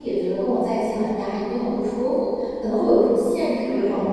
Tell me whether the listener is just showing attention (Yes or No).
No